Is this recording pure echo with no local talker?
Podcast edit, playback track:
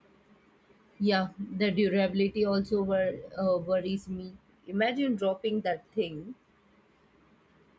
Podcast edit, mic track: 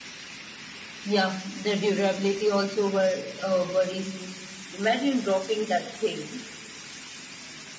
Yes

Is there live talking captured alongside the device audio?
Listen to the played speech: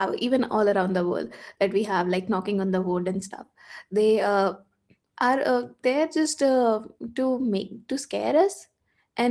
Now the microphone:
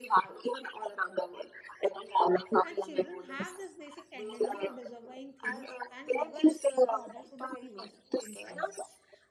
Yes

